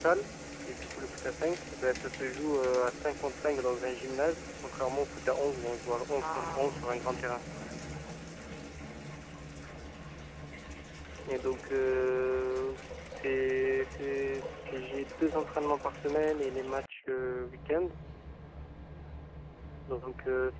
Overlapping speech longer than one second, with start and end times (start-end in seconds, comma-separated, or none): 6.2-7.4